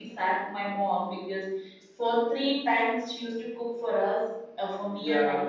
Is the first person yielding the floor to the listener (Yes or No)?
No